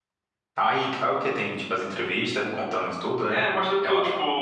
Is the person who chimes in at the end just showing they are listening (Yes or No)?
No